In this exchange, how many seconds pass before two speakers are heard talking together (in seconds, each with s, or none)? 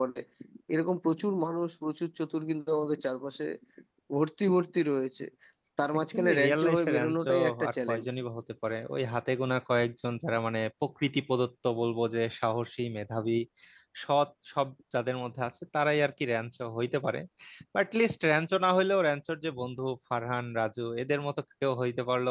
6.1 s